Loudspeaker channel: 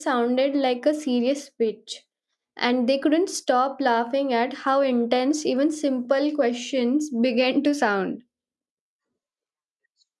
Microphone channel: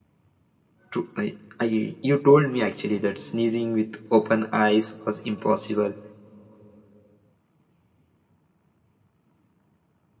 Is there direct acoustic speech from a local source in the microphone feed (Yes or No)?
Yes